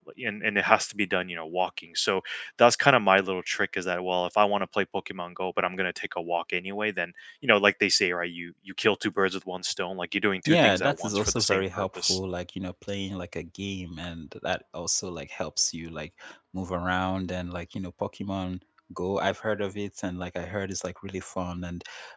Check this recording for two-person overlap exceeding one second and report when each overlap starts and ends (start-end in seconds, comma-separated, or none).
10.5-12.2